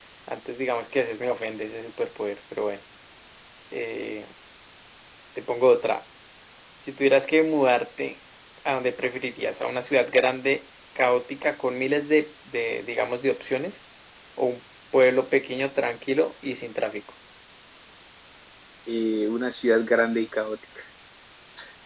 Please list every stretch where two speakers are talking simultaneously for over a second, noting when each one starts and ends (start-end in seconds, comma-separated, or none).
none